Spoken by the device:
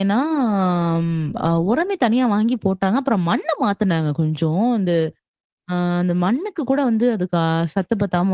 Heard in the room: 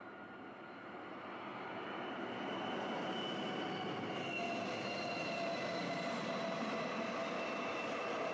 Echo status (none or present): none